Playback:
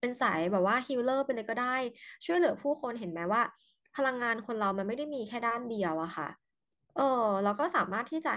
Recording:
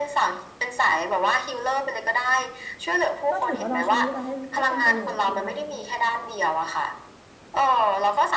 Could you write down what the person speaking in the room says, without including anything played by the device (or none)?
ก็ถือว่าเราใช้เวลาให้ให้เป็นประโยชน์ด้วย